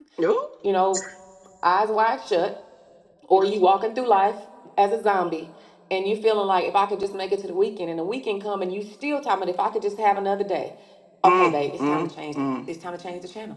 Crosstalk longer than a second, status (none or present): present